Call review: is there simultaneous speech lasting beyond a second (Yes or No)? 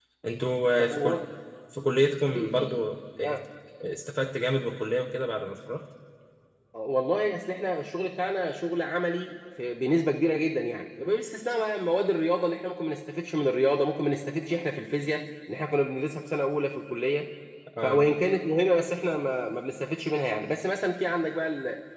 No